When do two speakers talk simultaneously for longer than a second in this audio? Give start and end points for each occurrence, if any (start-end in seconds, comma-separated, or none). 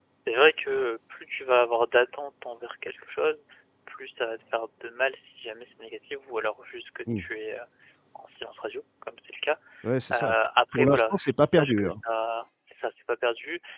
10.7-11.9